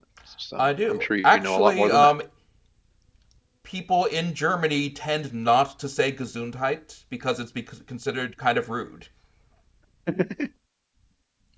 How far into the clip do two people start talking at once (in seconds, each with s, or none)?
0.6 s